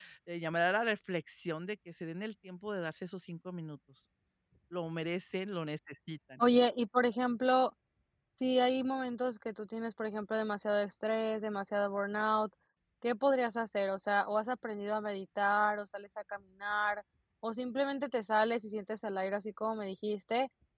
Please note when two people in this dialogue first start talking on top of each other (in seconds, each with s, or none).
none